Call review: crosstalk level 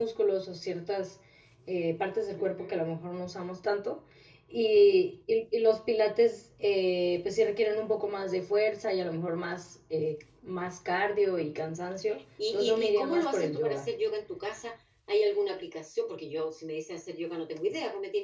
present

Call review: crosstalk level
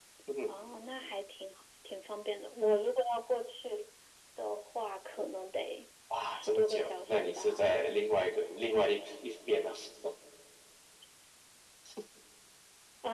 present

